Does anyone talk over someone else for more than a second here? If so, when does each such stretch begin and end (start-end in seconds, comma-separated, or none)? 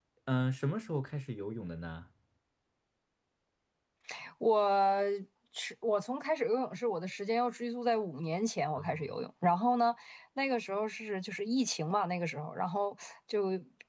none